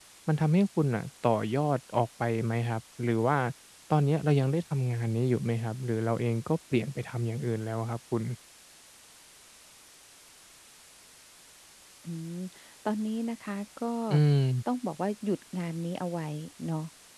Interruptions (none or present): none